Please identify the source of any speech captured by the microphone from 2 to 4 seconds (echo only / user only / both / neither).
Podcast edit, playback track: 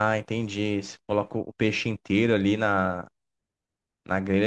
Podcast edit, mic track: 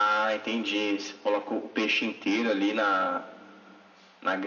echo only